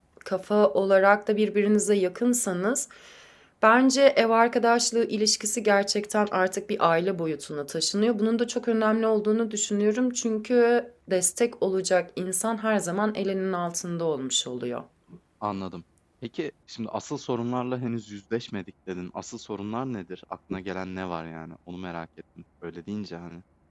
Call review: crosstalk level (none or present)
none